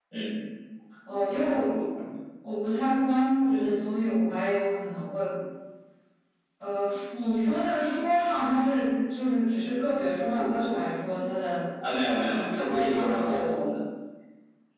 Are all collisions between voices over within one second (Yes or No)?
No